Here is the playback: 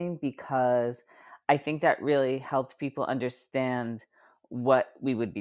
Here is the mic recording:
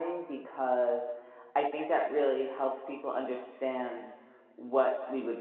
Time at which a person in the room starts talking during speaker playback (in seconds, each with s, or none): none